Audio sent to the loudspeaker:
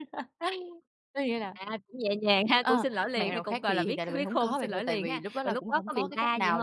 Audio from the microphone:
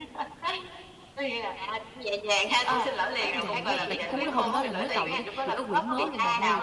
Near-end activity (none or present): present